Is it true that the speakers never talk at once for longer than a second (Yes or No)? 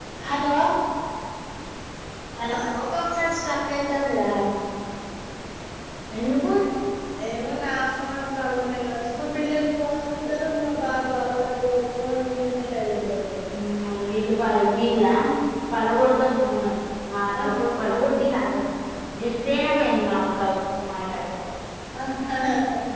Yes